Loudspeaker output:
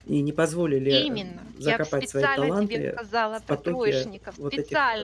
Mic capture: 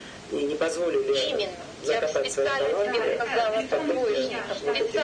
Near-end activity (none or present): present